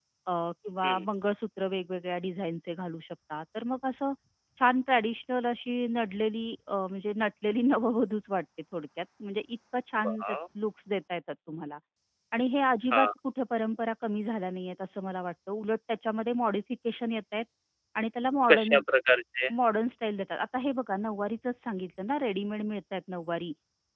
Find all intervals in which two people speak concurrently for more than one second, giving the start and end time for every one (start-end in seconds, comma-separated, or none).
none